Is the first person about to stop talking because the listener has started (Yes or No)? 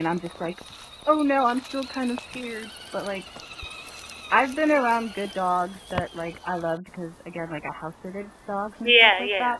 Yes